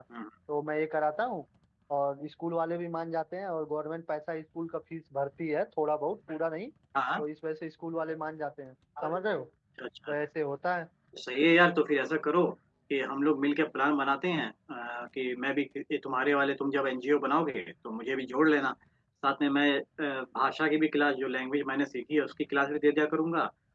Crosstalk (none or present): none